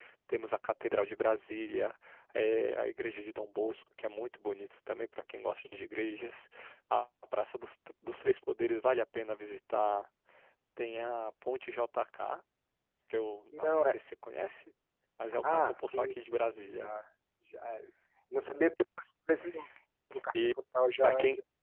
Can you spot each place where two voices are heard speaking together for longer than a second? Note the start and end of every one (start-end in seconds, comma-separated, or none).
15.5-16.9